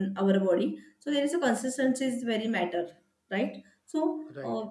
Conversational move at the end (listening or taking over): taking over